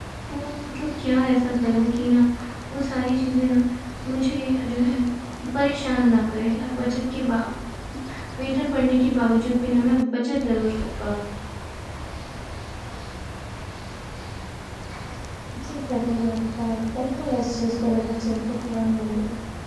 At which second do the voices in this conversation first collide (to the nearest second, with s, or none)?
none